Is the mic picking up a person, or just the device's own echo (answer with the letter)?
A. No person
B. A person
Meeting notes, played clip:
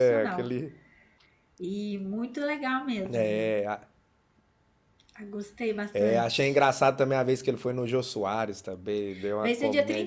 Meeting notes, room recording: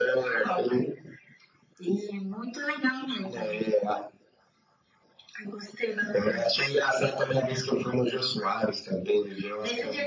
A